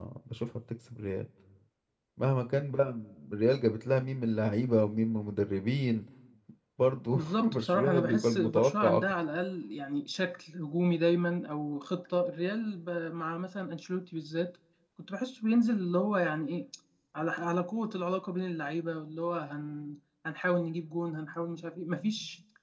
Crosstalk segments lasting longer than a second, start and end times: 7.1-9.0

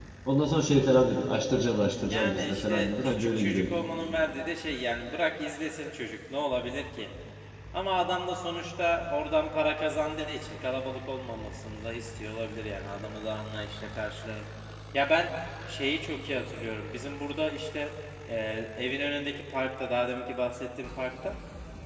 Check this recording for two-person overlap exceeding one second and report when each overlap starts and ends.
2.0-3.8

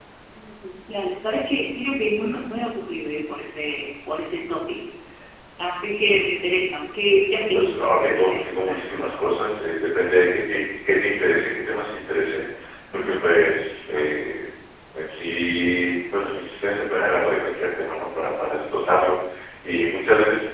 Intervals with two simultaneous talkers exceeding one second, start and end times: 7.5-9.2

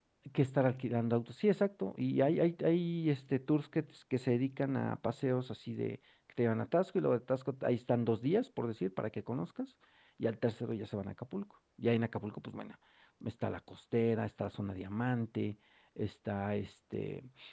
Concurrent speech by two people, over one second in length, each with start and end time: none

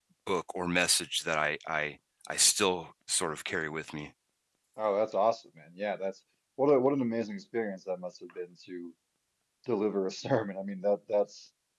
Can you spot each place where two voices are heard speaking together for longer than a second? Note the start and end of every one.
none

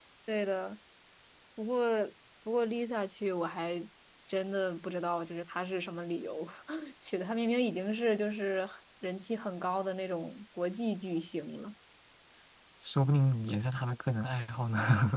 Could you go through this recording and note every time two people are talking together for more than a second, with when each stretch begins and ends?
none

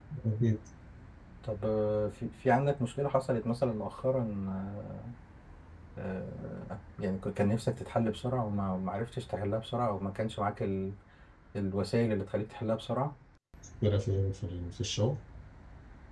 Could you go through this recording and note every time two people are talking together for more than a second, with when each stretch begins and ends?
none

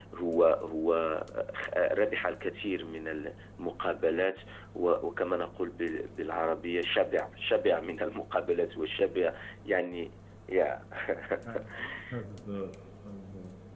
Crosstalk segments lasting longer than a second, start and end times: none

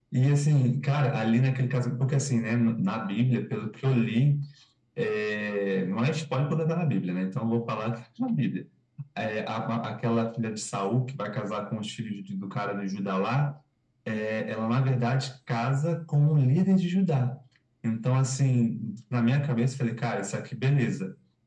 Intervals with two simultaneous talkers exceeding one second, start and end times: none

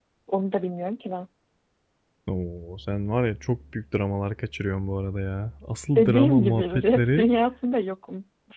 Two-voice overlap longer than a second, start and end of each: 6.0-7.3

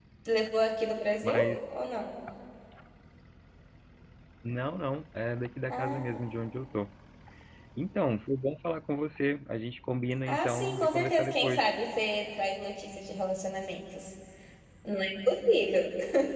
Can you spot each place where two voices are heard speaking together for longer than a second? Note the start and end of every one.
10.3-11.6

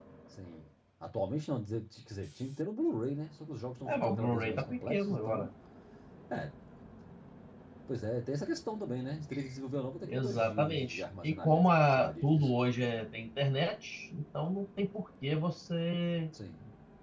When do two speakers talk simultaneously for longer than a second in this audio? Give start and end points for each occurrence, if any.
3.8-5.5, 10.0-12.5

